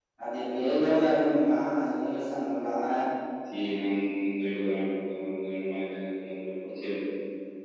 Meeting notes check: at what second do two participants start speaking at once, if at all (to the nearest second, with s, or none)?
none